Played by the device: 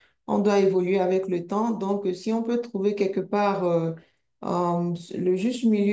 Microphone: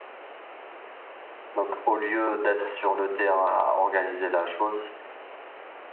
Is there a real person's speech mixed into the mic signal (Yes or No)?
Yes